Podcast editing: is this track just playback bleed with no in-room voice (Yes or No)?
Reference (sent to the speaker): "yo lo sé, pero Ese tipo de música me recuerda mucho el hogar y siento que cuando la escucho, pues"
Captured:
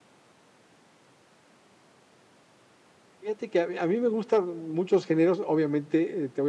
No